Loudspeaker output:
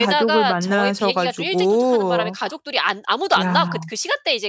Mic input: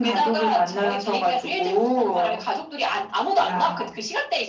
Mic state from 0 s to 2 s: echo only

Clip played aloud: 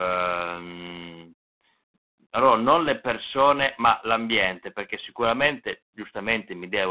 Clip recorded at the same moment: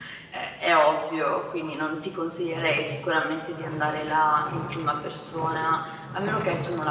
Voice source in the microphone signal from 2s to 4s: user only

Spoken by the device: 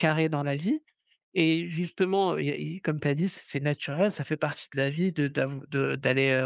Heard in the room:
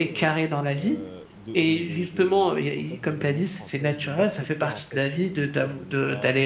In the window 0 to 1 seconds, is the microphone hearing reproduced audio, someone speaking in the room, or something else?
both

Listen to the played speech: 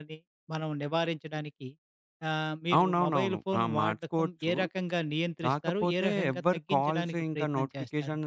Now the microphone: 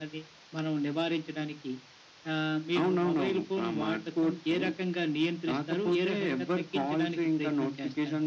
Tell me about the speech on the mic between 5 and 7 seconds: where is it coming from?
echo only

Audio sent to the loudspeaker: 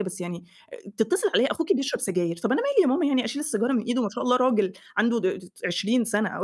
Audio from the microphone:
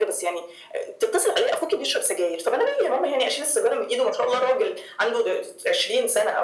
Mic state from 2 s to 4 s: echo only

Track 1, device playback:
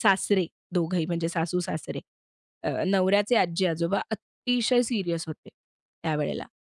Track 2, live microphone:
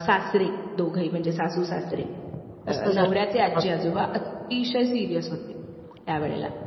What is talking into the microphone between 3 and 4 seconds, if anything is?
both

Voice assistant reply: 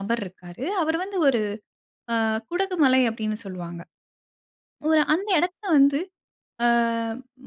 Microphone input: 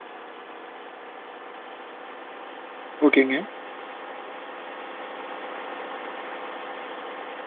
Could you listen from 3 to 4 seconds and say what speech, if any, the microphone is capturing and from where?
user only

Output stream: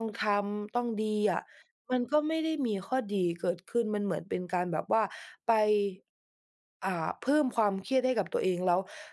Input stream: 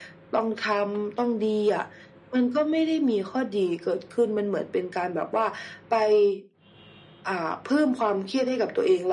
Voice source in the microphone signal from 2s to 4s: echo only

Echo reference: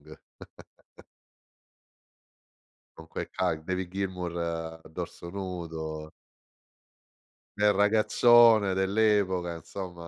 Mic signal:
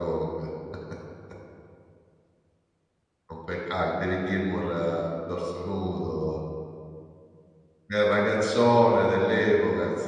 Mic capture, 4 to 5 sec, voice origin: echo only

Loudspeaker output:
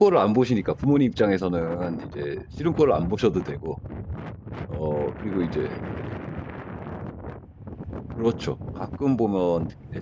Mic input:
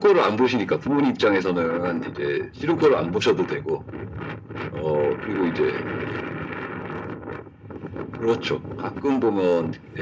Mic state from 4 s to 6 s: echo only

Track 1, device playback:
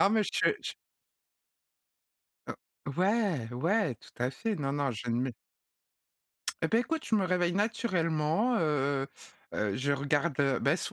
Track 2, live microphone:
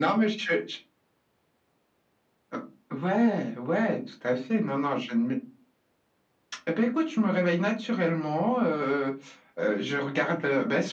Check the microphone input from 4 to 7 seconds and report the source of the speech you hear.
echo only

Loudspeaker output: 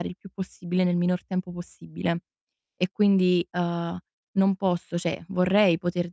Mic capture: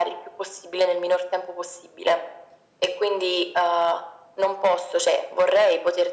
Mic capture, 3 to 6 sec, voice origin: echo only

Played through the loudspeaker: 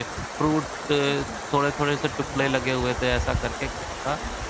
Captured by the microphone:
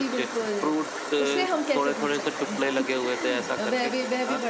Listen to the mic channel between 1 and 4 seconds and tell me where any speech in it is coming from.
both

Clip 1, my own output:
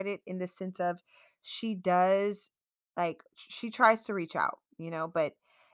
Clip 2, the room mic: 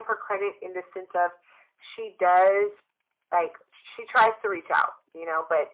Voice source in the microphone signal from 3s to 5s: echo only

